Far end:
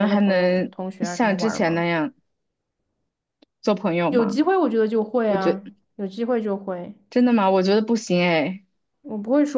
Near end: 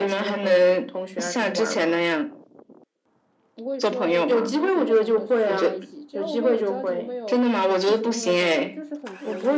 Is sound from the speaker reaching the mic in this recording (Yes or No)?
Yes